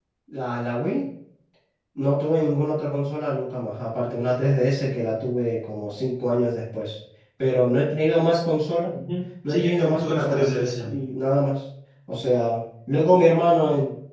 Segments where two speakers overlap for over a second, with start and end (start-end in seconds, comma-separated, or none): 9.5-10.9